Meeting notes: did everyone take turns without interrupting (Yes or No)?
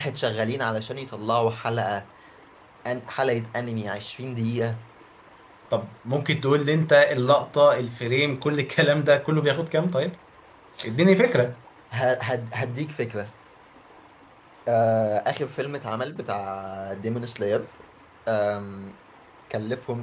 Yes